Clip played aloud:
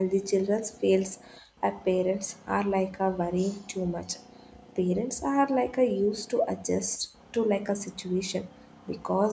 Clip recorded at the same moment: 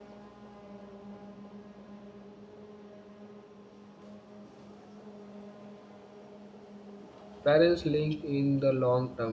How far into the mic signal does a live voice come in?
7.4 s

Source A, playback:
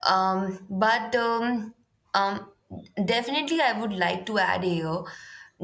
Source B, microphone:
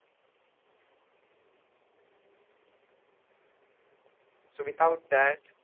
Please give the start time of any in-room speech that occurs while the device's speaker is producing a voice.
4.5 s

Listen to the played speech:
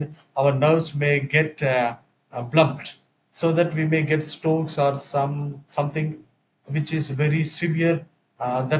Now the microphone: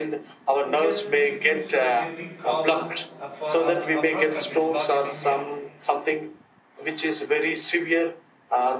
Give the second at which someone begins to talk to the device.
0.7 s

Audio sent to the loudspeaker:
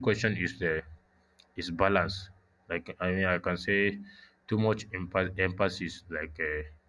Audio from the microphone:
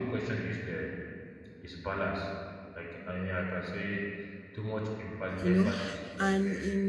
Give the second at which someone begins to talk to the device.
5.4 s

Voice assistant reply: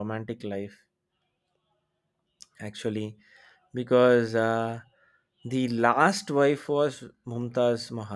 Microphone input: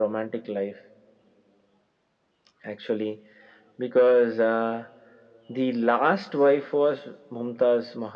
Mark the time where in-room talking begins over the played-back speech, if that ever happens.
none

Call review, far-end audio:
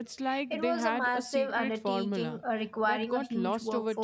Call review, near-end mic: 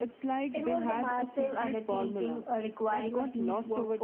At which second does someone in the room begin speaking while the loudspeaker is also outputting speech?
none

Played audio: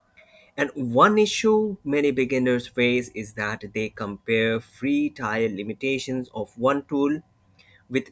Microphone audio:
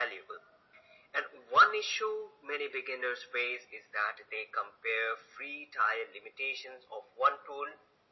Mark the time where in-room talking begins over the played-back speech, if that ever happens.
none

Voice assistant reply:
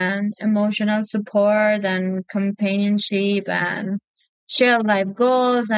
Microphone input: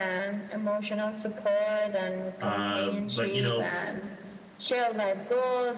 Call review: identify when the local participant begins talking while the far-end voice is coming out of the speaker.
2.4 s

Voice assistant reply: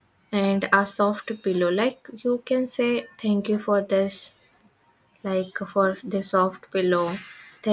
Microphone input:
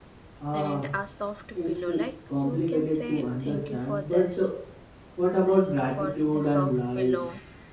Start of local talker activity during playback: 0.4 s

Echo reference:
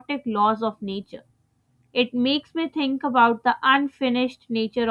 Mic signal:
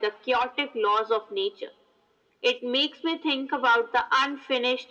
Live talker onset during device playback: none

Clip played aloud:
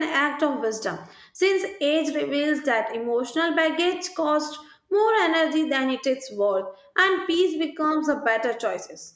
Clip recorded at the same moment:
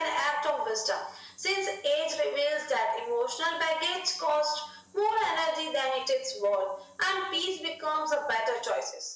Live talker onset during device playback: none

